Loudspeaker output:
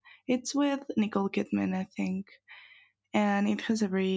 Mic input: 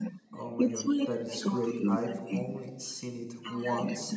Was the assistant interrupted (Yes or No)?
Yes